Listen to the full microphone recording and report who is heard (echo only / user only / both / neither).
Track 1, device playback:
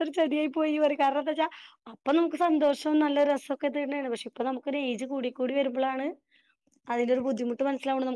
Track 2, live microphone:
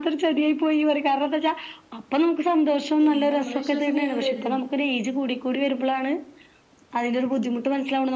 both